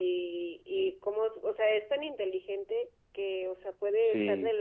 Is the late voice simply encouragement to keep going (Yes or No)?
Yes